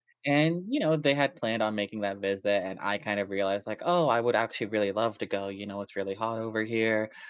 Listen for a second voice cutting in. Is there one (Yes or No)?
No